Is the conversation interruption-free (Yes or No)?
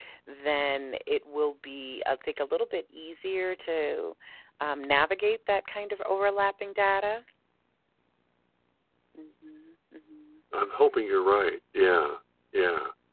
Yes